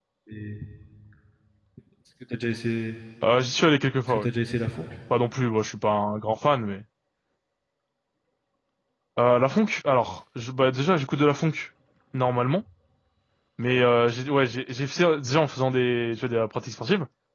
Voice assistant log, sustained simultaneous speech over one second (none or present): none